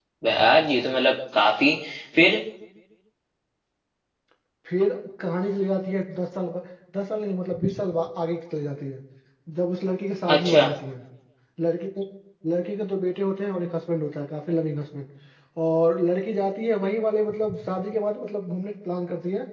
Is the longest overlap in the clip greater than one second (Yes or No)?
No